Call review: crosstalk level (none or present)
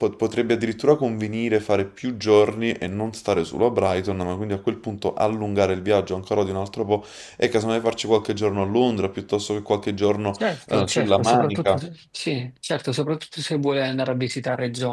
present